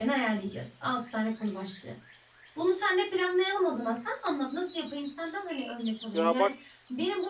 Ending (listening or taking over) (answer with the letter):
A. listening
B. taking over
A